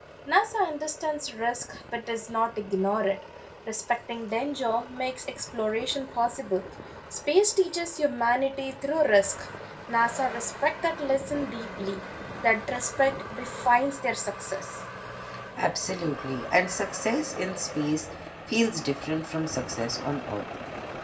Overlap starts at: none

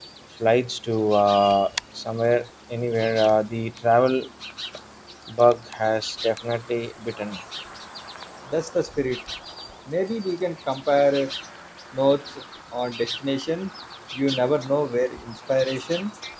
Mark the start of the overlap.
none

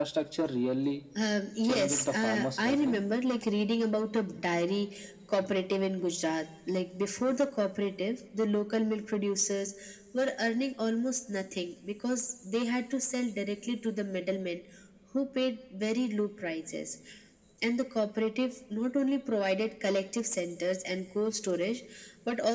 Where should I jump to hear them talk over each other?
1.6 s

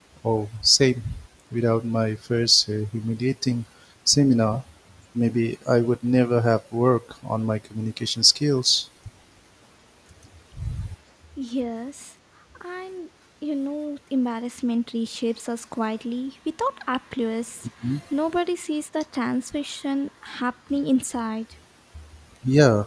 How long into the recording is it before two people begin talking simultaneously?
none

